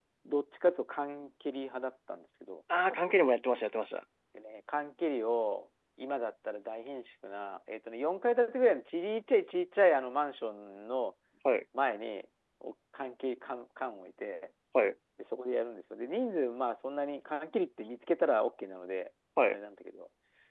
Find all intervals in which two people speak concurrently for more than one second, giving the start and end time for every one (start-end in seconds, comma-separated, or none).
none